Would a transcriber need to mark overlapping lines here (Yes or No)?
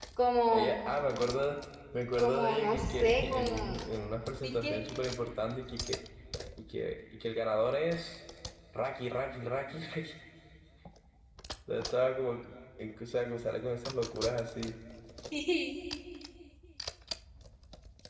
Yes